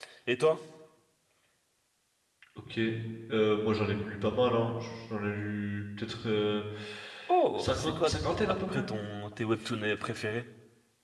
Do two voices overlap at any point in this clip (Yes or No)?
Yes